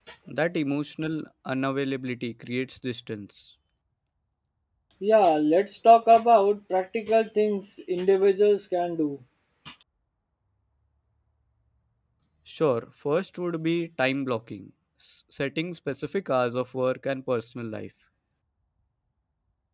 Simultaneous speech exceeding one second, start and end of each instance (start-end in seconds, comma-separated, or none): none